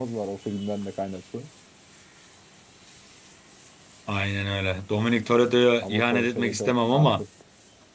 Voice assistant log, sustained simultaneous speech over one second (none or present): present